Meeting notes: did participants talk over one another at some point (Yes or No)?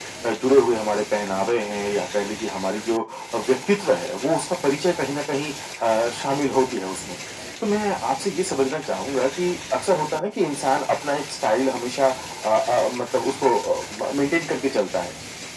No